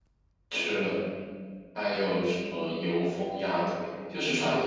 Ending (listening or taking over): listening